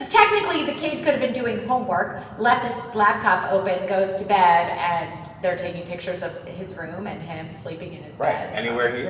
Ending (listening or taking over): taking over